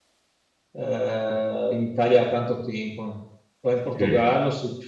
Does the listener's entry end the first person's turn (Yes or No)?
No